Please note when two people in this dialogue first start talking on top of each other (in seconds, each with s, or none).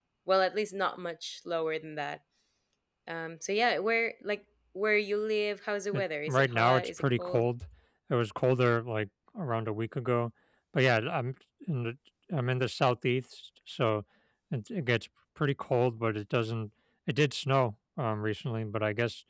5.9 s